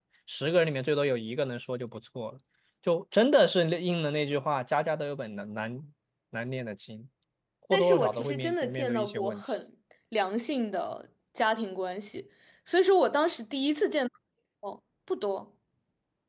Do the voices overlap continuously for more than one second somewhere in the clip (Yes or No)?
Yes